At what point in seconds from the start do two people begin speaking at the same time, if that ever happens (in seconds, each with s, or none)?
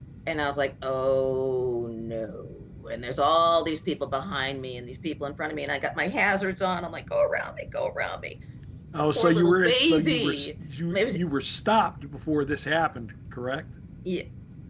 9.2 s